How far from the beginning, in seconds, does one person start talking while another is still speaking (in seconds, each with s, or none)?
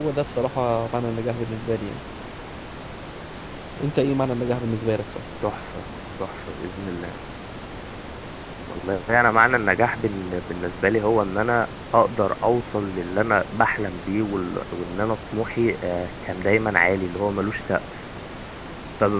none